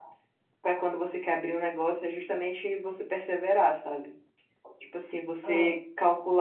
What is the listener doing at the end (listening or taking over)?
listening